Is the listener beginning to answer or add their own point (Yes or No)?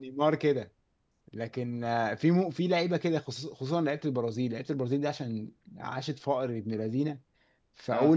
No